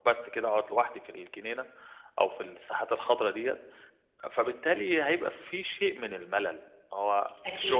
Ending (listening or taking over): listening